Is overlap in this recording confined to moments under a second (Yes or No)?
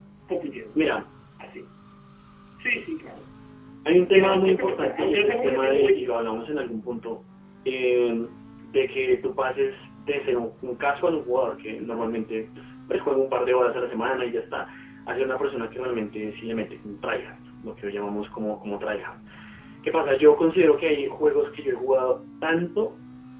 No